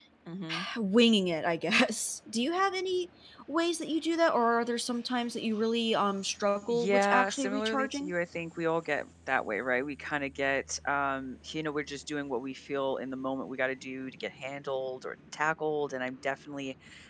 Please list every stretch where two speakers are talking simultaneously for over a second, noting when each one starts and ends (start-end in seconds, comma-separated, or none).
6.7-8.1